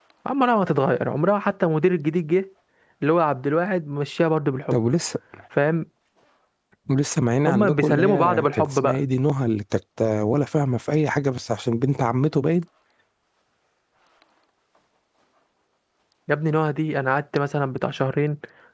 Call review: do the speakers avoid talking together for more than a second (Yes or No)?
No